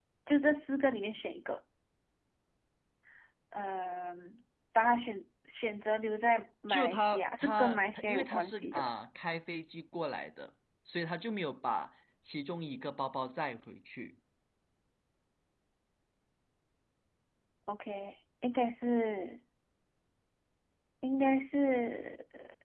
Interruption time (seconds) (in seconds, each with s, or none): 6.7 s